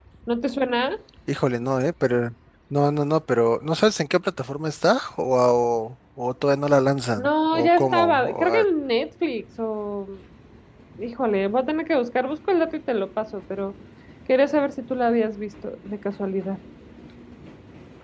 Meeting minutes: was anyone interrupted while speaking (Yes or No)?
Yes